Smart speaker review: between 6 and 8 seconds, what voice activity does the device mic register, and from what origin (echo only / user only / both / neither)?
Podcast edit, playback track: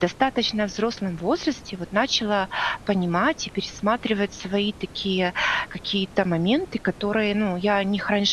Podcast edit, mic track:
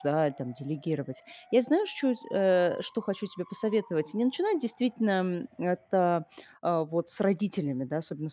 user only